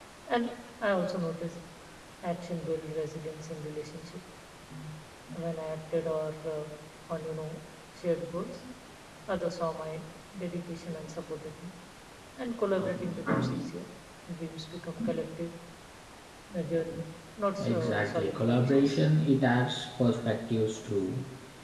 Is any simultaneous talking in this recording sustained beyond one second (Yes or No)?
Yes